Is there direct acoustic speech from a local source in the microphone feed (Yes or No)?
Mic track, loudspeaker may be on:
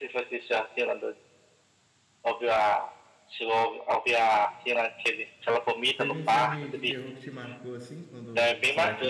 Yes